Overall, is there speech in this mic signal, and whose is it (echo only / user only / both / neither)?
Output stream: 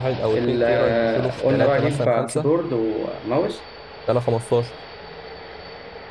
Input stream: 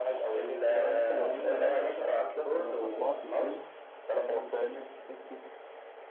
both